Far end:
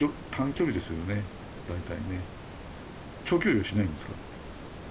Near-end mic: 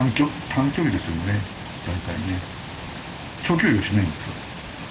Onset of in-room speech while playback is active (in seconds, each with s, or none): none